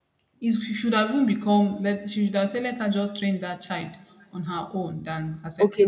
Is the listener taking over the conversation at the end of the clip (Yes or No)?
Yes